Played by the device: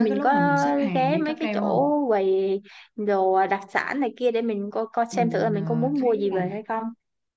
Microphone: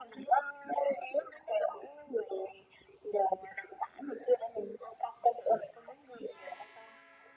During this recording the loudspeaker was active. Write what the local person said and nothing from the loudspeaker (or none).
none